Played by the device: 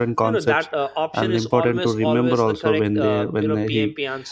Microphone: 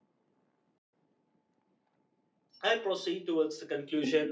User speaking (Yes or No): Yes